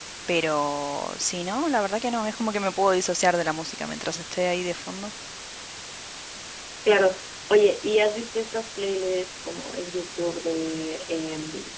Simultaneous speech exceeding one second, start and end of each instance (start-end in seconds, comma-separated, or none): none